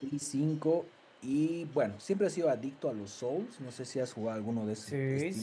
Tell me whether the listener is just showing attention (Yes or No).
No